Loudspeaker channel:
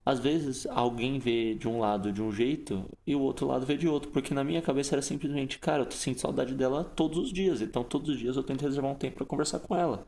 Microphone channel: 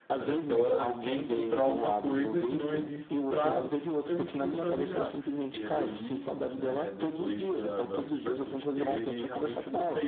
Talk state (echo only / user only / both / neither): both